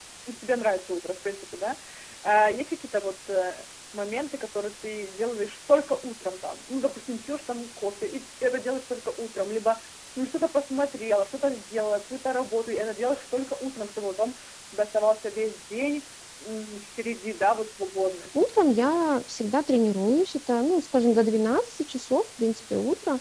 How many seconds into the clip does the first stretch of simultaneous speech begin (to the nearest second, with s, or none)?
none